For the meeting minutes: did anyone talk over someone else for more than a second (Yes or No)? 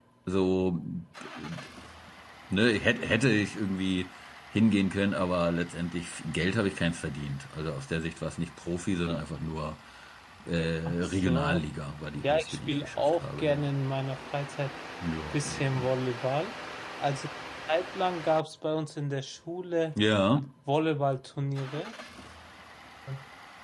Yes